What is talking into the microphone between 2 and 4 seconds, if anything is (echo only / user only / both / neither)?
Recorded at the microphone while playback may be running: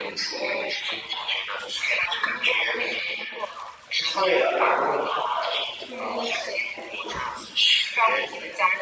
echo only